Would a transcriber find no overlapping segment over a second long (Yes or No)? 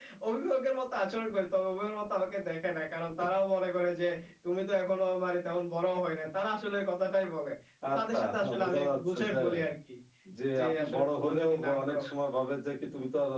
No